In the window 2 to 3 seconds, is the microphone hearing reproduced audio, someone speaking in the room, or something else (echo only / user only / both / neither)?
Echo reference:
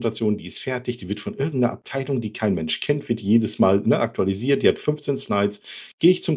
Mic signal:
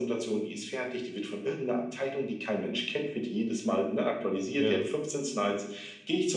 echo only